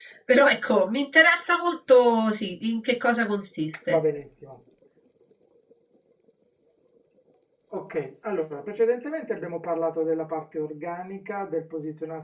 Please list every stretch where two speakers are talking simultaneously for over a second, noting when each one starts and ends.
none

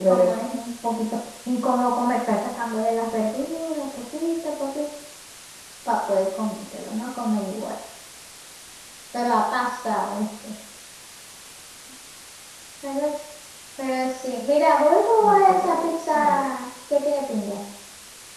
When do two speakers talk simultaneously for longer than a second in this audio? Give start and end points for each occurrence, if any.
15.2-16.5

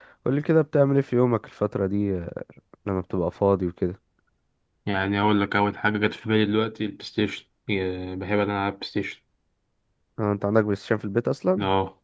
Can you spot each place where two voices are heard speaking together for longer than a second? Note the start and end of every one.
none

